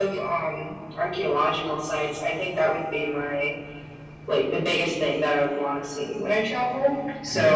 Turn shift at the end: No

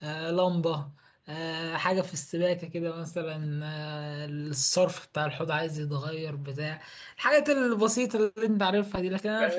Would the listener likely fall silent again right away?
No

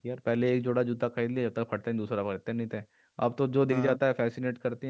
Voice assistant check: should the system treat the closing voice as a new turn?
No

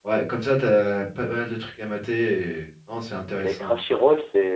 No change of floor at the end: No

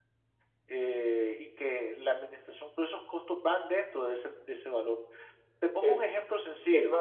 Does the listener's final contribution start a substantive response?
Yes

